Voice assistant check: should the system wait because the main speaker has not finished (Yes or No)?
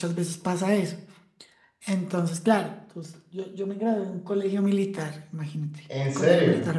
Yes